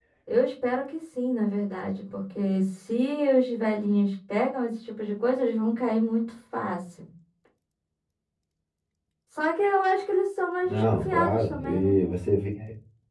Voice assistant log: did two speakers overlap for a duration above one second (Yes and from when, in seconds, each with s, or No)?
Yes, from 10.6 s